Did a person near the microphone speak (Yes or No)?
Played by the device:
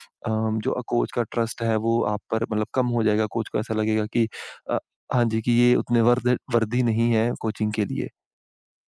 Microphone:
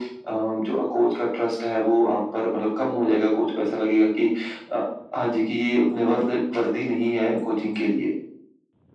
No